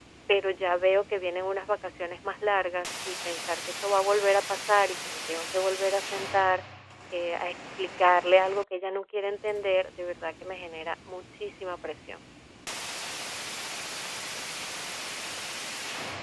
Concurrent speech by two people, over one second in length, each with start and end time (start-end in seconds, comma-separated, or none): none